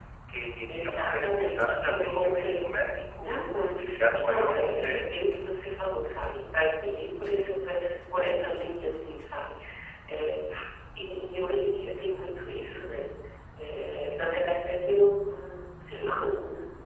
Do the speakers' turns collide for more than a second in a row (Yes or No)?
Yes